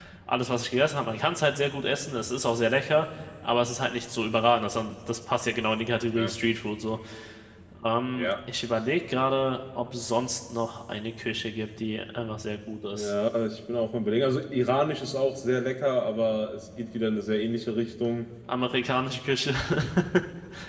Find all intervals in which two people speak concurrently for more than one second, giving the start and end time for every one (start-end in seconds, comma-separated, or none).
none